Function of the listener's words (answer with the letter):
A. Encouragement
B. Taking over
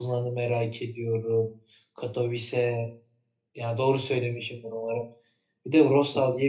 A